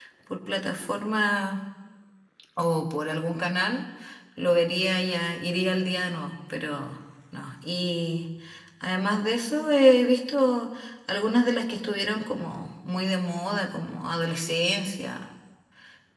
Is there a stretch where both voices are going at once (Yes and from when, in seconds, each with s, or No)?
No